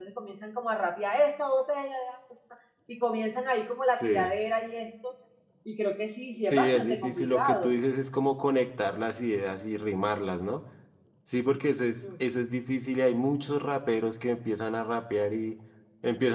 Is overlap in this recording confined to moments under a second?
No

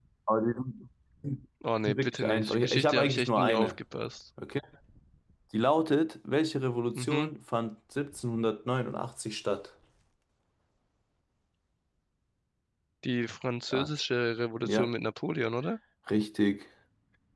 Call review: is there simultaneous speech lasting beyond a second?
Yes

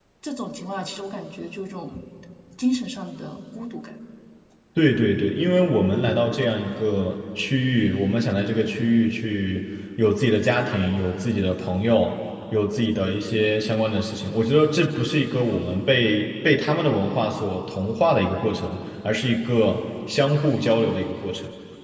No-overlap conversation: Yes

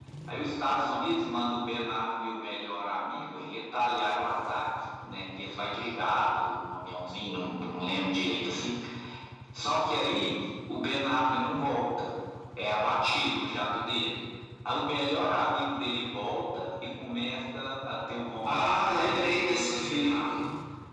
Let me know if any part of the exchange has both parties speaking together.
Yes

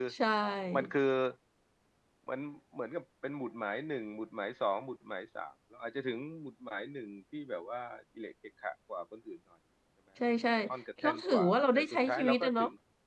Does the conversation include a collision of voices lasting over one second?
Yes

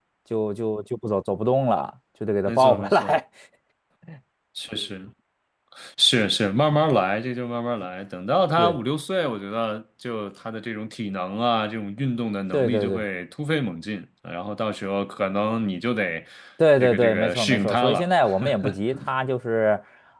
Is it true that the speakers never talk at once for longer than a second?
No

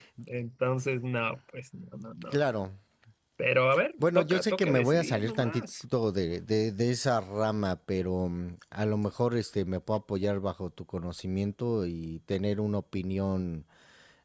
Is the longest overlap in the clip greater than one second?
Yes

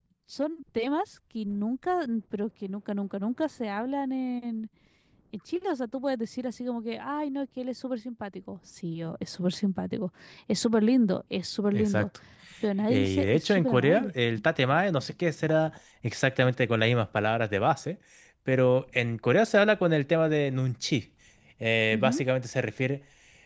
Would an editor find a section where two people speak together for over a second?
Yes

